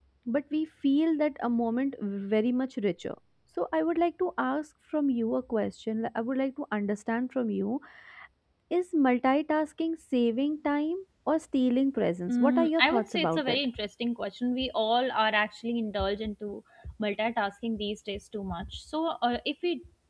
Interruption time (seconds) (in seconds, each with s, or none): 12.3 s